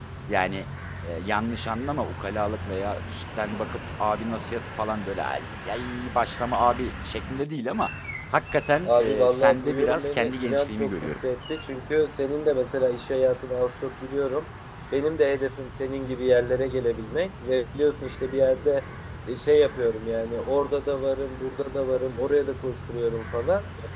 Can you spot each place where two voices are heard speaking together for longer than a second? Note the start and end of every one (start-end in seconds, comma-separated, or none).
8.8-11.1